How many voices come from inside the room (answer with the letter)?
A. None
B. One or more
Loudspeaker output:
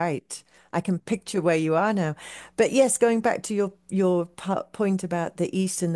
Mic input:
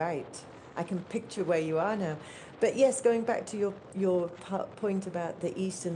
A